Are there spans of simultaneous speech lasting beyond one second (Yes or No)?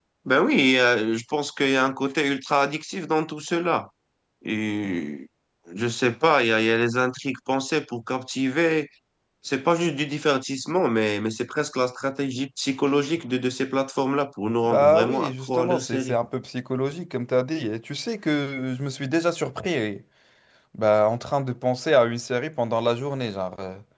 Yes